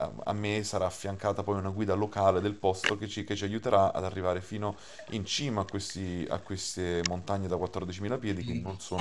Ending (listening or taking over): taking over